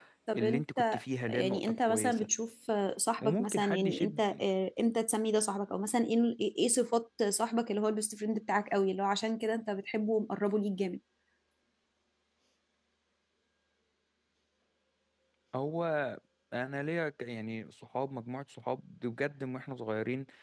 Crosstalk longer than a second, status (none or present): present